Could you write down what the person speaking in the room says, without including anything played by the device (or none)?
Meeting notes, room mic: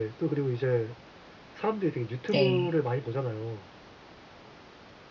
네.